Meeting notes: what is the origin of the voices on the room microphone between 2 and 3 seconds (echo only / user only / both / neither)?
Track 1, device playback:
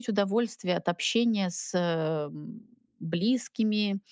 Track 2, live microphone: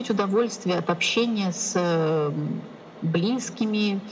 echo only